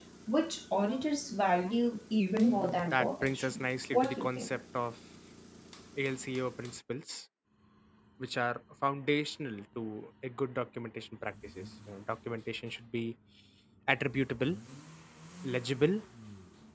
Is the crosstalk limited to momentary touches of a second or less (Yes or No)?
No